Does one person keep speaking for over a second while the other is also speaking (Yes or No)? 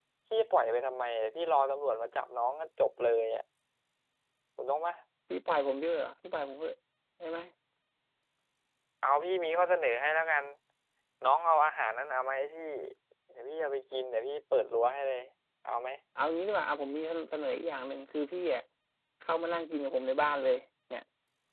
No